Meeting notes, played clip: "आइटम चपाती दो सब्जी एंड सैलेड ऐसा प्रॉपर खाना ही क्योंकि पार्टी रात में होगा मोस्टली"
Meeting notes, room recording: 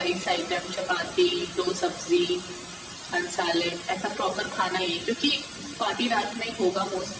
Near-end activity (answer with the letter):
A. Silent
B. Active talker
A